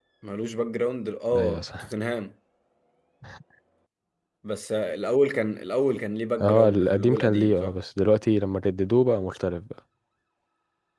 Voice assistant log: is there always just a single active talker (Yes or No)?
No